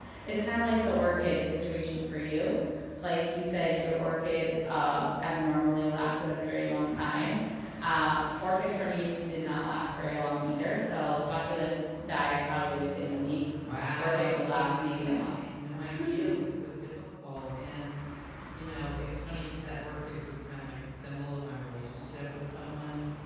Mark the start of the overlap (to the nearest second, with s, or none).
14 s